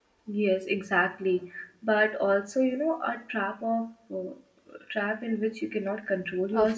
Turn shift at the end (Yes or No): Yes